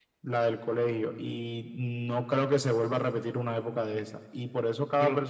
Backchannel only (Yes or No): Yes